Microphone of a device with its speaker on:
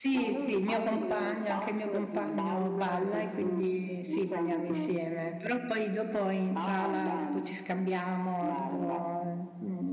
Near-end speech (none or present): present